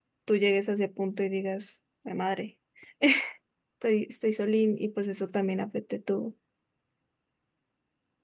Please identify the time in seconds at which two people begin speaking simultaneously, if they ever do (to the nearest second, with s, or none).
none